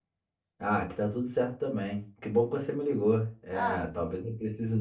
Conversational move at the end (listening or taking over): listening